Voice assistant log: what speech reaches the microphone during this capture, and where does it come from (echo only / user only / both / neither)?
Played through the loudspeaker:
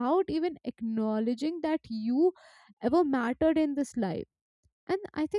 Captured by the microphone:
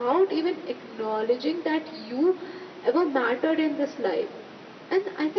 echo only